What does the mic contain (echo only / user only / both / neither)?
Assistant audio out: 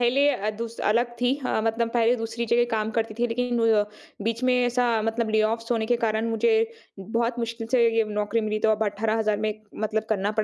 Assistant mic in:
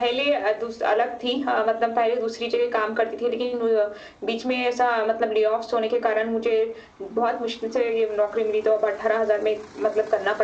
echo only